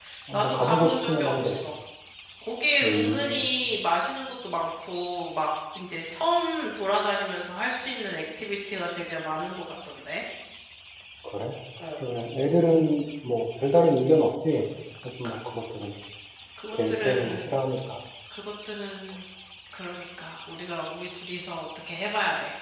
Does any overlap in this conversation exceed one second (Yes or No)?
Yes